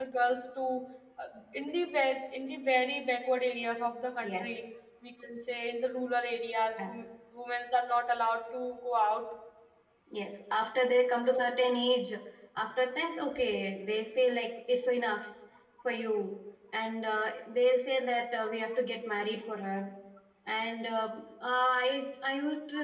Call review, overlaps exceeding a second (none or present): none